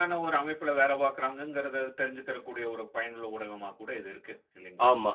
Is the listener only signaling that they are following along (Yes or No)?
No